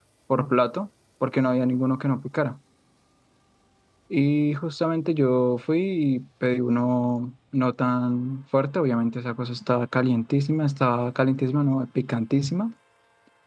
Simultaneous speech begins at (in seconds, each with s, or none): none